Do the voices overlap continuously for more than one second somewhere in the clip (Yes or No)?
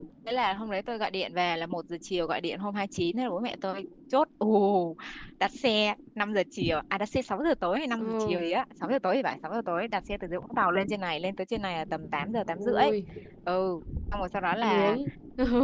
No